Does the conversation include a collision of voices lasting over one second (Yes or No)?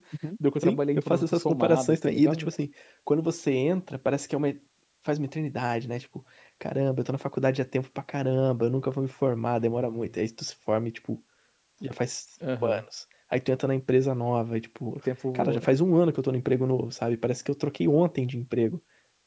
Yes